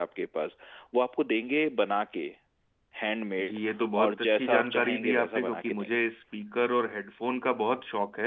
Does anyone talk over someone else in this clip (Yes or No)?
Yes